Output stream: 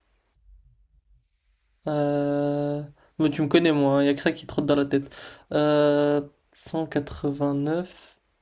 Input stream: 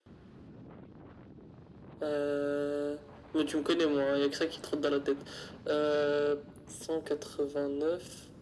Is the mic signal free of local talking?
Yes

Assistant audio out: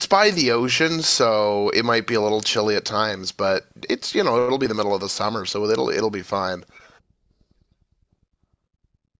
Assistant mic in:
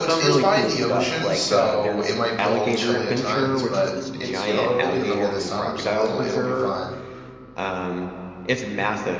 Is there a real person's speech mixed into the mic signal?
Yes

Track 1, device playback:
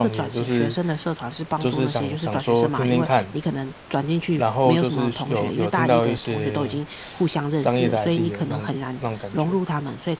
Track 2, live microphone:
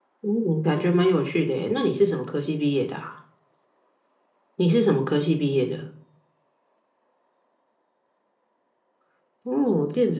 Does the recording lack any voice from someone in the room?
No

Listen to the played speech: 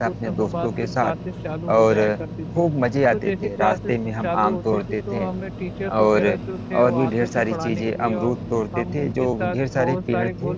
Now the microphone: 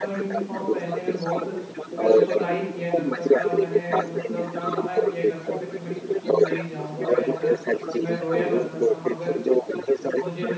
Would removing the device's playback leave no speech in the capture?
No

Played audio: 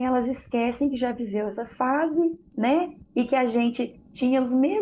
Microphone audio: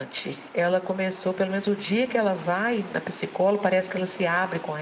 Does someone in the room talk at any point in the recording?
Yes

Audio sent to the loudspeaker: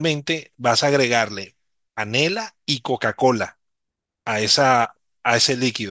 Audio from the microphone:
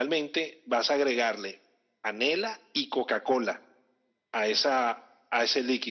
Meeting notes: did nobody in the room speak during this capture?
Yes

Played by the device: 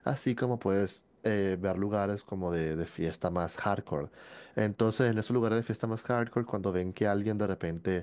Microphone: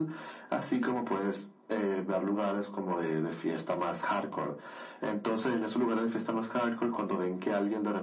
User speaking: No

